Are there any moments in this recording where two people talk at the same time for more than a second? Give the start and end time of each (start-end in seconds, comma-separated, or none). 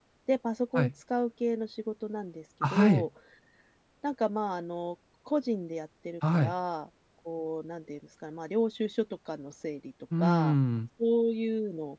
none